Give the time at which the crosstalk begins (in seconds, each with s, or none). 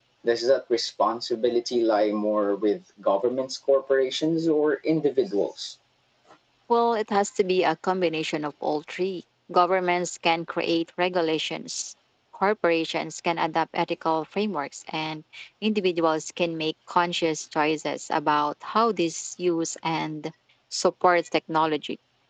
none